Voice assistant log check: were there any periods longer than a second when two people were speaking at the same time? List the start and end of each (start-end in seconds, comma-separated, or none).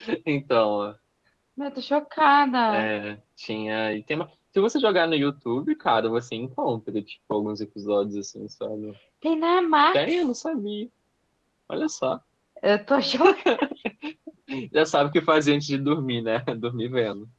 none